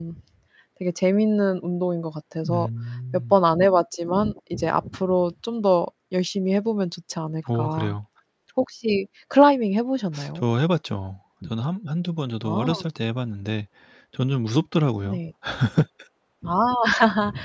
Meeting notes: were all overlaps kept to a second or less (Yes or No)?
Yes